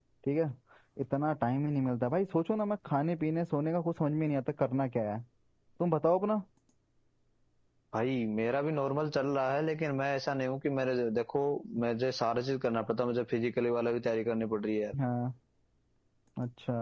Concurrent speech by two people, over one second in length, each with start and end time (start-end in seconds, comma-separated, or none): none